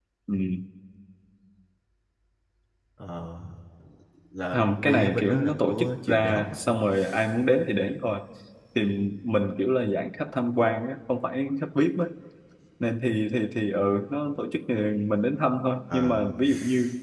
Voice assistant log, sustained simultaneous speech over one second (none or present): present